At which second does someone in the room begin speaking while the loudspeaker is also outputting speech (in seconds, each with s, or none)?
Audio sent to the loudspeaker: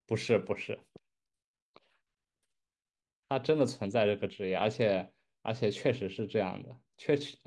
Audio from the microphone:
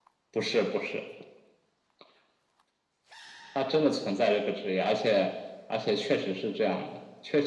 none